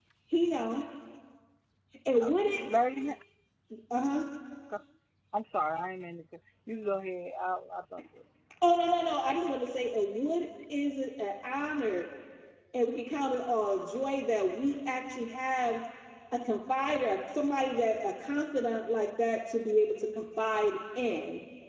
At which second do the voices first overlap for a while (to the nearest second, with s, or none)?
none